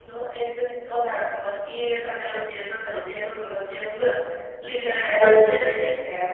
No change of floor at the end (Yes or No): Yes